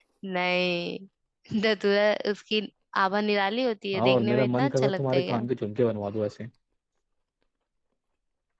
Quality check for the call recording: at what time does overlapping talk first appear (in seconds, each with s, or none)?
3.9 s